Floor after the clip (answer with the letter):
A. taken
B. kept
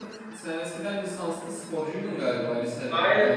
A